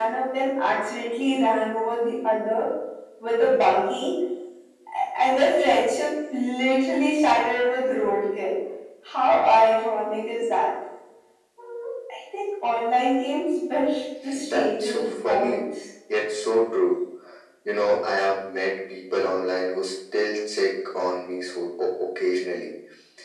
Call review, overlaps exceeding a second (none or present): present